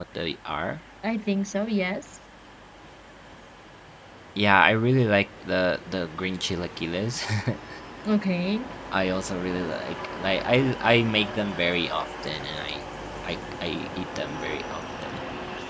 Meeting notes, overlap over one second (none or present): none